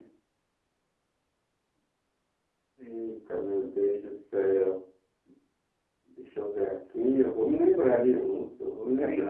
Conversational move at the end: taking over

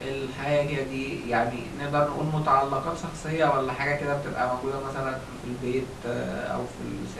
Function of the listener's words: taking over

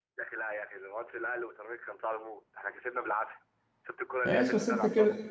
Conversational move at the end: taking over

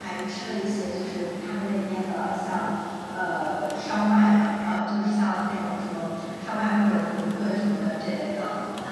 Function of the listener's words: taking over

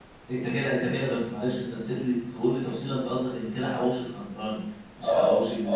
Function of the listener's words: taking over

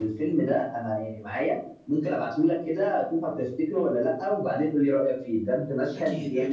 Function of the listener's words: taking over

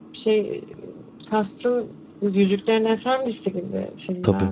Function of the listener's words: taking over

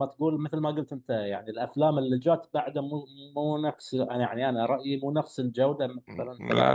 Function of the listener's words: taking over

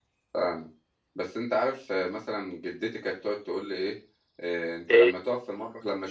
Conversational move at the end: listening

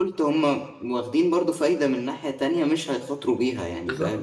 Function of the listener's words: taking over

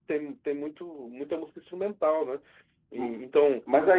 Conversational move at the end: taking over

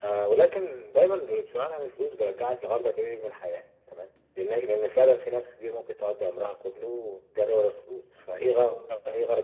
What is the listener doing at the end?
listening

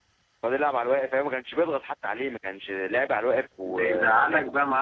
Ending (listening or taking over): taking over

